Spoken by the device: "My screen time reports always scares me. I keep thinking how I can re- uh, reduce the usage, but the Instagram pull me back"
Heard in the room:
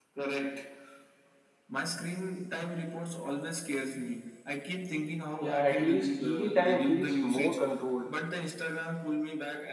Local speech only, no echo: Yeah, at least TV time feels more controlled.

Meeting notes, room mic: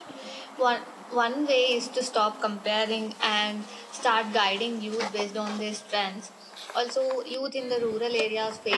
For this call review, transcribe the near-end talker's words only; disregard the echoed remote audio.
none

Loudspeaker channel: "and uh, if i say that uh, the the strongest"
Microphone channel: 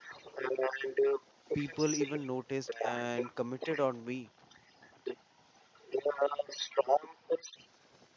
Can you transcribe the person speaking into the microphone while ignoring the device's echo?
people even noticed and committed on me

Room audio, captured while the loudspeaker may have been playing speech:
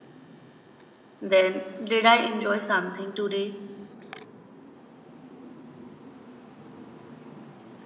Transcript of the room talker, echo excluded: Then, Did I enjoy something today?

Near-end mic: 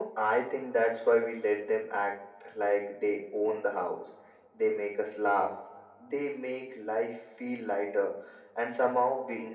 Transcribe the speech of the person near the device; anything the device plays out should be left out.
none

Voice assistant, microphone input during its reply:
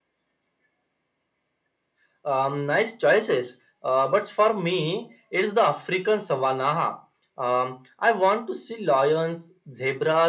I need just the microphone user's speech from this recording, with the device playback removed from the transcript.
none

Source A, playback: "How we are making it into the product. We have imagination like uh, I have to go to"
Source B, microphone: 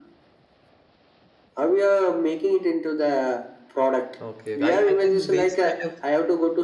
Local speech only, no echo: Okay. okay. I, I think these kind of

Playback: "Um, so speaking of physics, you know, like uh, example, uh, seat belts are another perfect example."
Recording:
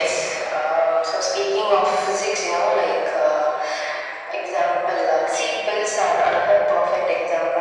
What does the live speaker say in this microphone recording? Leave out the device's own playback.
none

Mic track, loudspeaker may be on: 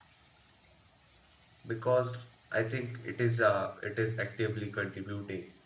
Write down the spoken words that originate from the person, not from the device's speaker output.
because I think it is uh, it is actively contributing

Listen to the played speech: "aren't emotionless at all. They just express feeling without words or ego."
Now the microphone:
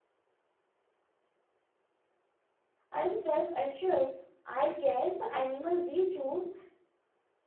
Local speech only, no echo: and self assured. I guess the animal we choose

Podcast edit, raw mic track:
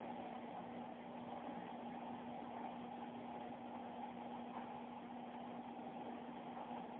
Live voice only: none

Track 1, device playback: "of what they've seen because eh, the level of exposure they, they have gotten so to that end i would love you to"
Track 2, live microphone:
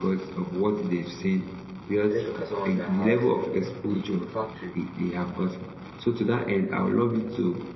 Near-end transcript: let's look at someone that has a, a factory.

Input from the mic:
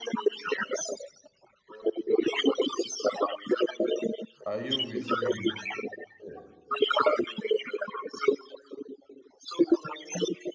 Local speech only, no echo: Are you with me? Yeah.

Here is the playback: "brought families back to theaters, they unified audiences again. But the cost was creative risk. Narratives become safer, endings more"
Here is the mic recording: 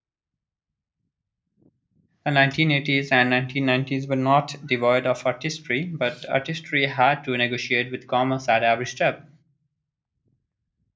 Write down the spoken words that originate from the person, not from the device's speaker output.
The 1980s and 1990s were not devoid of artistry, but artistry had to negotiate with commerce at every step.

